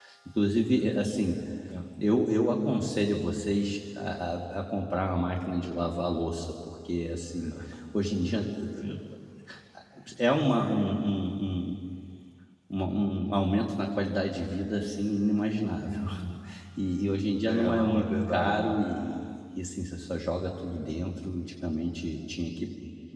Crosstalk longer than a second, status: present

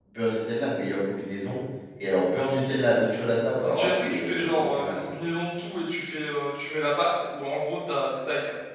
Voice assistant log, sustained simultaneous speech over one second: present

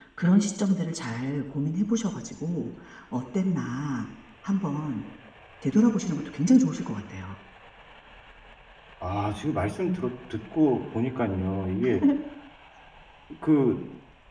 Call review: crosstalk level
none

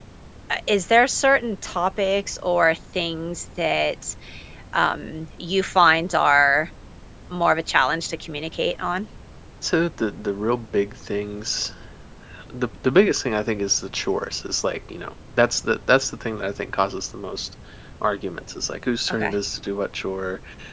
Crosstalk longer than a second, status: none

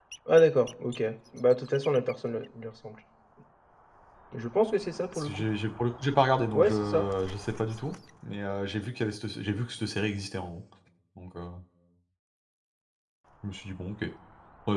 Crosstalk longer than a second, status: none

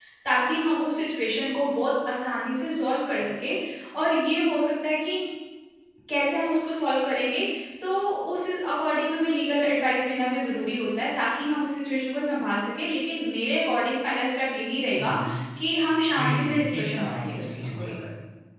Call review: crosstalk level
present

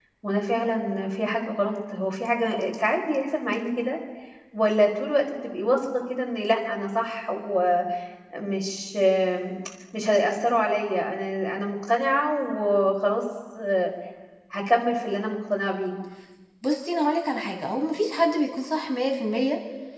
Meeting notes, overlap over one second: none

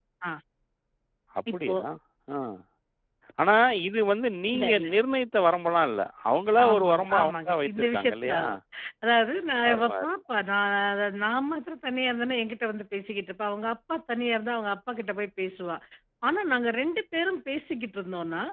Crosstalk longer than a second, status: present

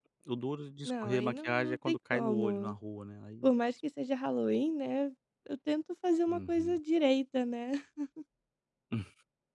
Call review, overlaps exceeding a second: present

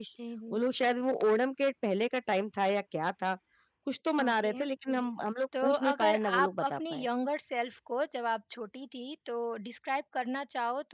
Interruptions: present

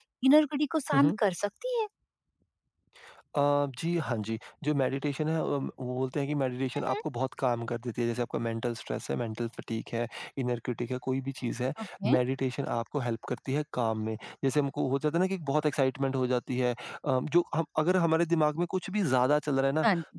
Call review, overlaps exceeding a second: none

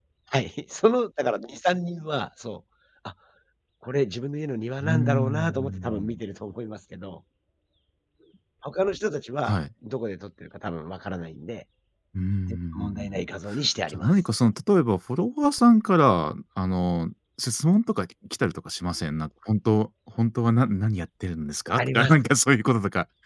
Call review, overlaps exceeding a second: present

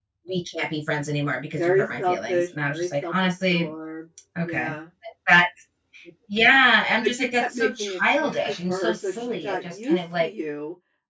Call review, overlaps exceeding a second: present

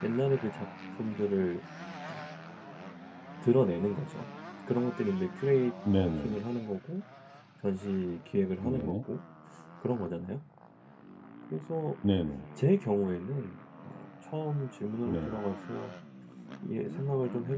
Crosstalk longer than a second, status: none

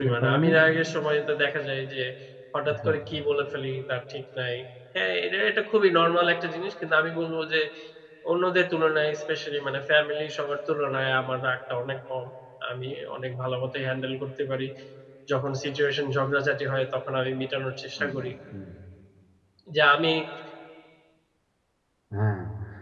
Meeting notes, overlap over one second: none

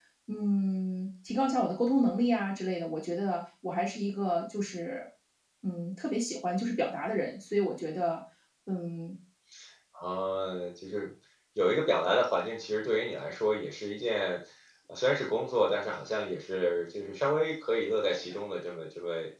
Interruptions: none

